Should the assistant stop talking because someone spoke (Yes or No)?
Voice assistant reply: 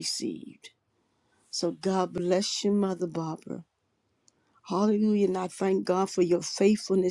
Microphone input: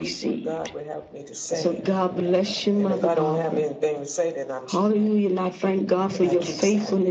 Yes